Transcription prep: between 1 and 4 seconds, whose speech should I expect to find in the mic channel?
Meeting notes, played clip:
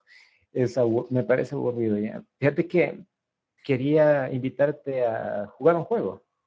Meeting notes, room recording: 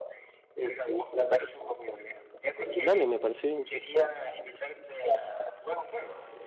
both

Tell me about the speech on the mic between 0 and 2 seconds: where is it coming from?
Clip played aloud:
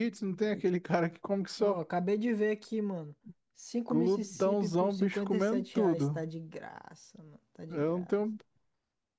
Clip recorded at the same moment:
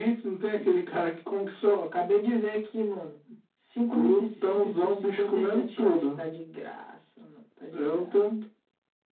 echo only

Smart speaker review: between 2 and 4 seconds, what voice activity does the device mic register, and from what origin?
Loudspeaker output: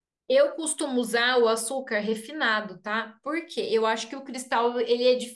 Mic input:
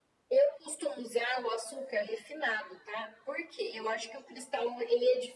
echo only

